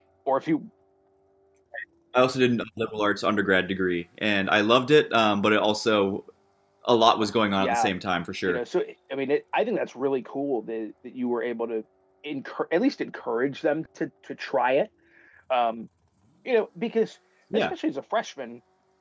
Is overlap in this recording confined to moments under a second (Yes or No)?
Yes